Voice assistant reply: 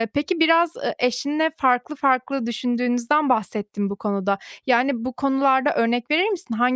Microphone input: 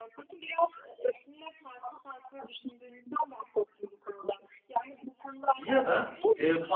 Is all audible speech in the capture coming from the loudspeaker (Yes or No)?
No